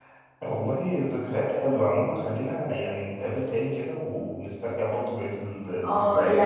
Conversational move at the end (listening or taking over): taking over